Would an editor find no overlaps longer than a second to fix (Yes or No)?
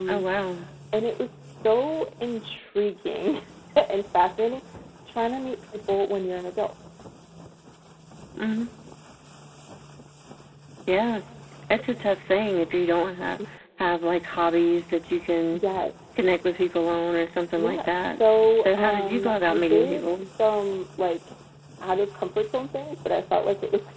No